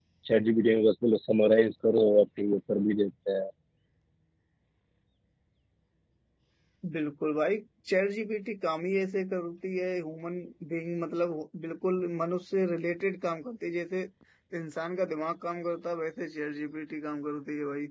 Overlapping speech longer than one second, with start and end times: none

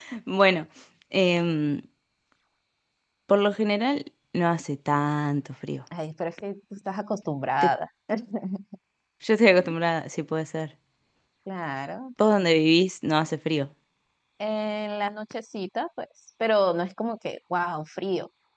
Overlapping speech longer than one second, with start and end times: none

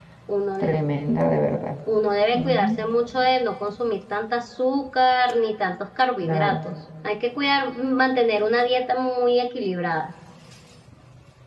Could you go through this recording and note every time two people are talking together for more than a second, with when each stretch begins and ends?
none

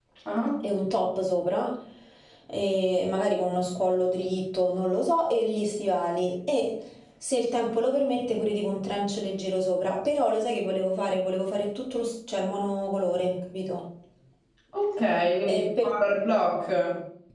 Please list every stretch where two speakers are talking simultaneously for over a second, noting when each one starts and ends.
none

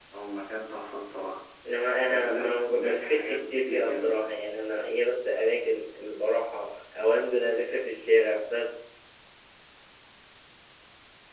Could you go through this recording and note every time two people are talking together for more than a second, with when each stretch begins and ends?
2.1-4.3

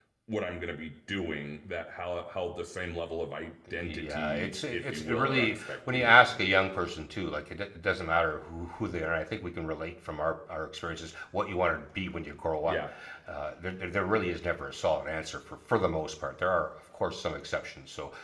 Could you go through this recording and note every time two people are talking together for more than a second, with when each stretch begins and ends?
3.8-6.4

